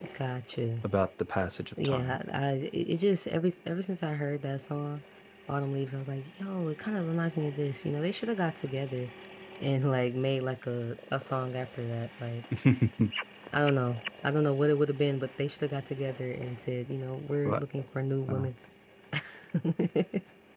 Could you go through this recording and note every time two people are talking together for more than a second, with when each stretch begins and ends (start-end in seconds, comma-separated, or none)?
none